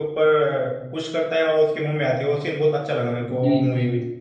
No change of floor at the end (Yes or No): No